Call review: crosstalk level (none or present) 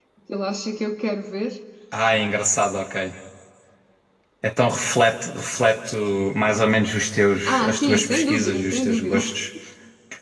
present